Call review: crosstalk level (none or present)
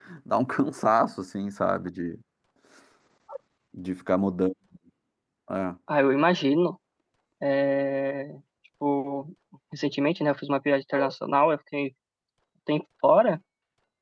none